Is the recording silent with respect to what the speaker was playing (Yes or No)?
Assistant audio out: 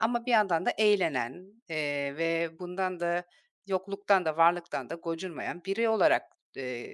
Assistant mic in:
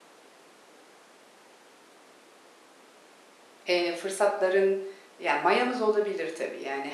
Yes